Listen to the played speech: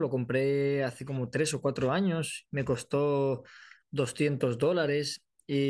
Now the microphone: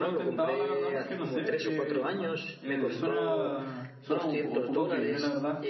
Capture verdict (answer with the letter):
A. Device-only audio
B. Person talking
B